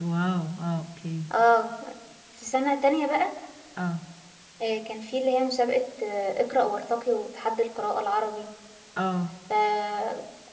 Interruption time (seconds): none

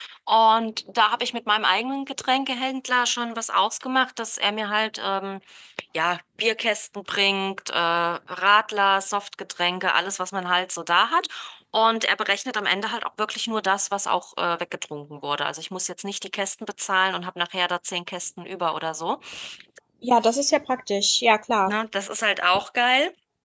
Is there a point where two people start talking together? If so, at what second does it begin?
none

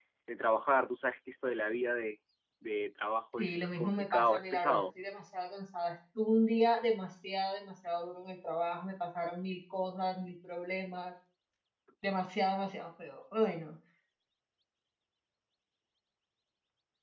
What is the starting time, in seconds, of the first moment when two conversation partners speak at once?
3 s

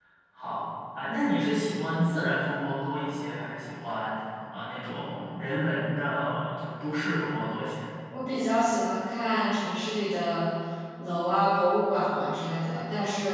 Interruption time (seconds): none

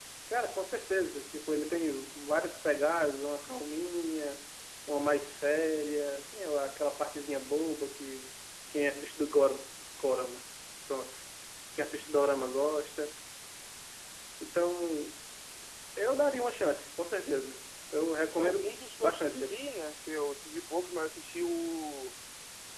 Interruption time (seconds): 18 s

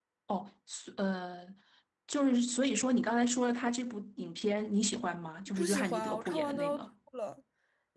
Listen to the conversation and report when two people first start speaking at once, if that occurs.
5 s

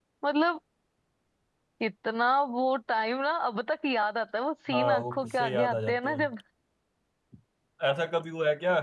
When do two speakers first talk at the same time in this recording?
5 s

